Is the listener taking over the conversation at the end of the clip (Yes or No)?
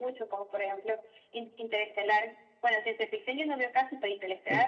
Yes